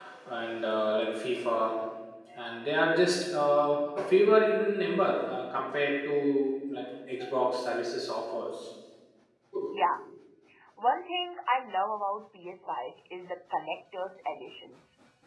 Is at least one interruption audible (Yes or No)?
No